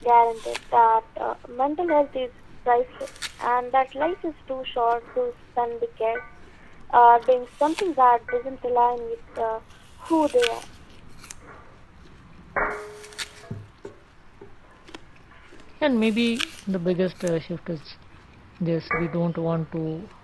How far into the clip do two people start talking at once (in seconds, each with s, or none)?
none